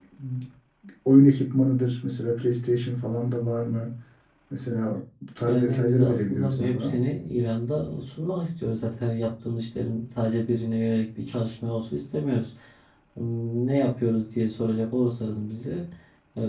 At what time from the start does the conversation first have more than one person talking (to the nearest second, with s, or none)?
5 s